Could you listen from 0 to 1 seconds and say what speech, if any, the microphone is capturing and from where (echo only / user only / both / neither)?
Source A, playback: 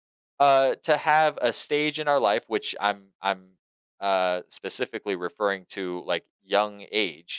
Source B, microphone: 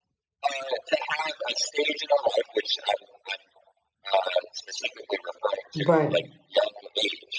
echo only